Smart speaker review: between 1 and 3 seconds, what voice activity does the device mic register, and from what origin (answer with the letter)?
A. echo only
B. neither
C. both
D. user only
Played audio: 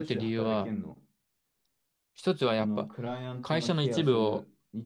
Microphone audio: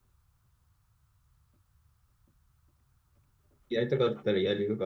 B